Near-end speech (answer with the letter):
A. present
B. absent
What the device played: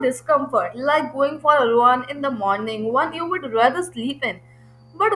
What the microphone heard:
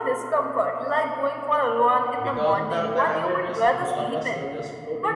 A